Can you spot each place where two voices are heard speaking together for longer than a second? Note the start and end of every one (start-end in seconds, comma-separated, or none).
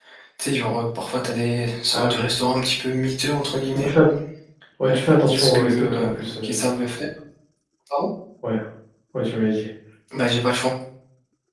4.9-6.6